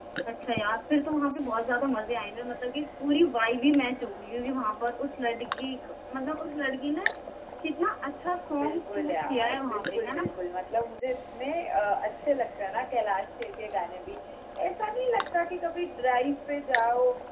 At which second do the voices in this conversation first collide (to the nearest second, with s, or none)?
9 s